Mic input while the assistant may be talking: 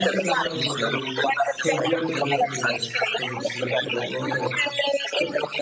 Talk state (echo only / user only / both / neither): both